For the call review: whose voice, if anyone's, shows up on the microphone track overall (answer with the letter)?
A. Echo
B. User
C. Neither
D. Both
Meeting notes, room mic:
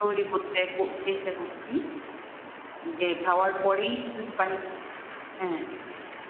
A